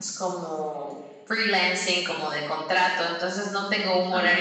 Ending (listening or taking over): listening